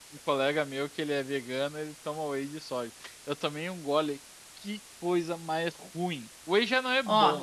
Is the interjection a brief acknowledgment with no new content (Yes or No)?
No